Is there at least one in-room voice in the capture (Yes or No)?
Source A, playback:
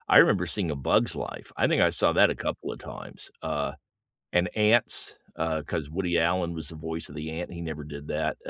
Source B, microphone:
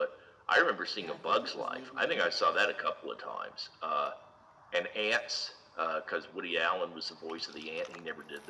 Yes